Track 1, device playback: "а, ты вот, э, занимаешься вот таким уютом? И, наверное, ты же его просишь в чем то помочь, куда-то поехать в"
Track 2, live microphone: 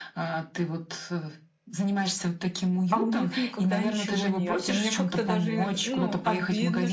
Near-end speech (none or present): present